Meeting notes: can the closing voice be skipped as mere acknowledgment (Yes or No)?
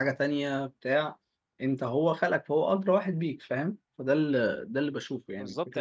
No